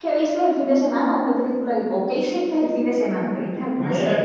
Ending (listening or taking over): taking over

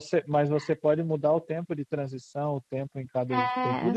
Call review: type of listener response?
taking over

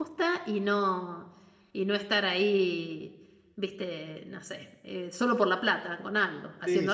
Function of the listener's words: taking over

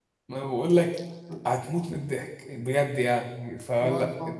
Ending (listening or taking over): listening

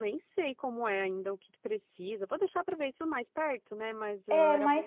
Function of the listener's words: taking over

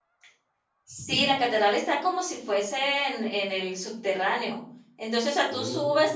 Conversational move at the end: listening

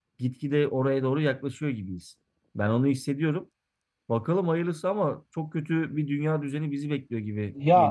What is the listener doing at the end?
taking over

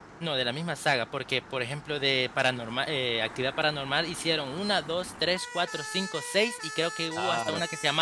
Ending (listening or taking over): taking over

